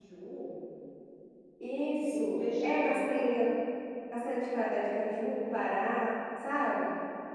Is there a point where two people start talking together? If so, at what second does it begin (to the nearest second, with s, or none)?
2 s